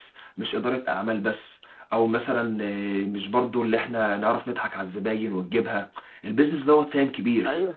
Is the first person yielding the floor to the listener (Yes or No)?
No